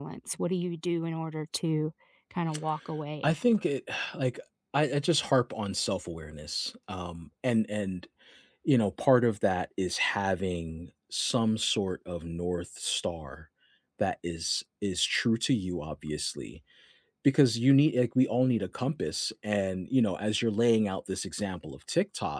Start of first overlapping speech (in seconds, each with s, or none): none